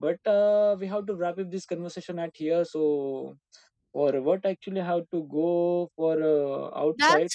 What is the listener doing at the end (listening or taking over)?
taking over